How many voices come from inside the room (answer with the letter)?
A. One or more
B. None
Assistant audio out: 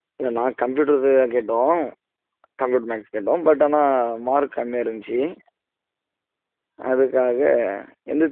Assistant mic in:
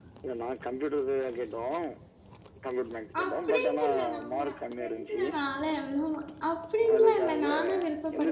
A